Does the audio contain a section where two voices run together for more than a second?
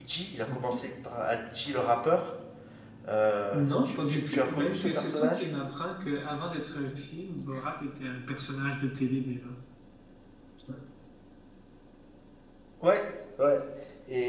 Yes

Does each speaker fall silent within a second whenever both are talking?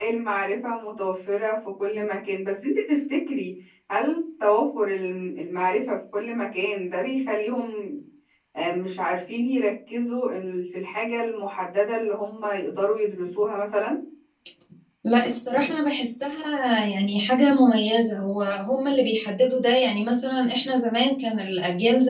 Yes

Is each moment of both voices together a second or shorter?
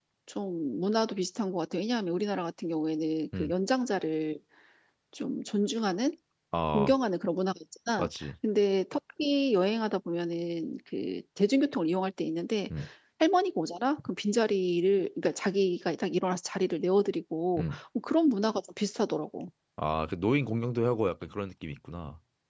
Yes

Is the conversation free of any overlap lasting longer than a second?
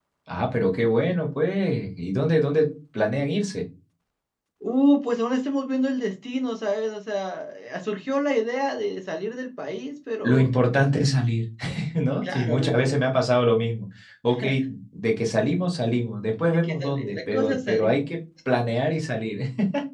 No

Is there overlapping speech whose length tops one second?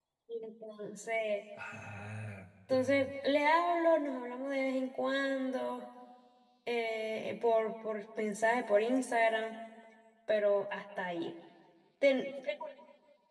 No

